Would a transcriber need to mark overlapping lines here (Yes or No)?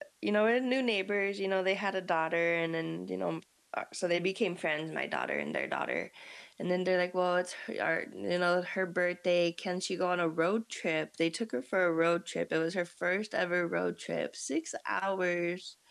No